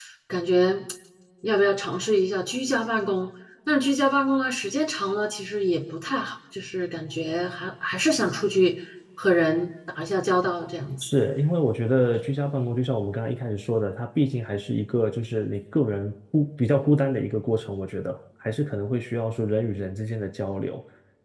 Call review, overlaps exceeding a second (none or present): none